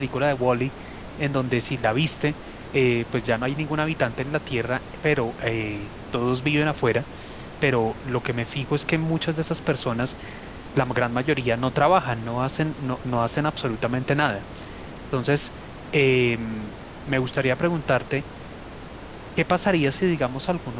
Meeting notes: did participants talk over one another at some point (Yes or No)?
No